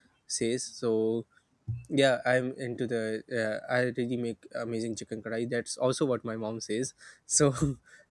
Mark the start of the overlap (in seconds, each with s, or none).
none